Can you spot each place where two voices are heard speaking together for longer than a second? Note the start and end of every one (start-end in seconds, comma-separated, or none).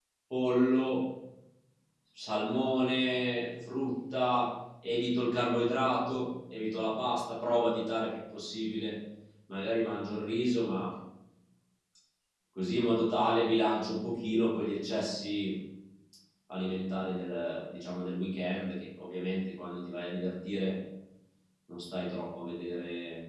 none